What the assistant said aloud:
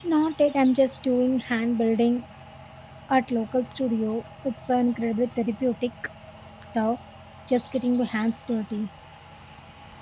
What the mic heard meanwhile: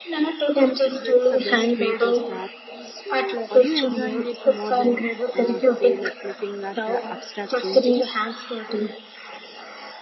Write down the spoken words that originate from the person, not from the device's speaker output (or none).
That's the best way to start. So are you enjoying it more than uh, say like looking at a abstract painting?